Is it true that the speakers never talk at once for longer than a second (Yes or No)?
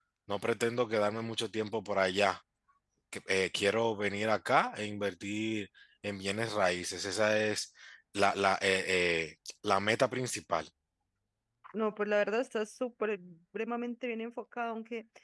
Yes